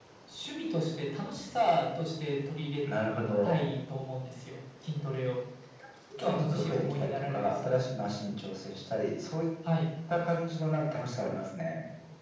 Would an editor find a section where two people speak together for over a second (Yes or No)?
Yes